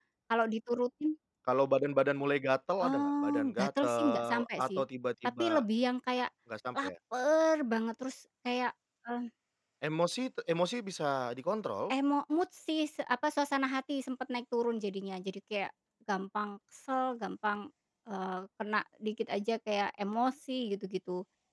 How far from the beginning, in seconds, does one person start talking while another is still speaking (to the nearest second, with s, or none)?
3 s